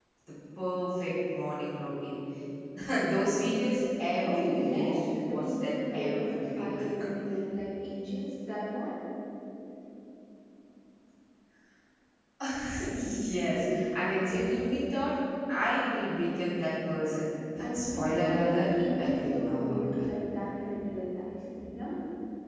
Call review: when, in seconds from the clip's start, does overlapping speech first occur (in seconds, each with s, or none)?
4.2 s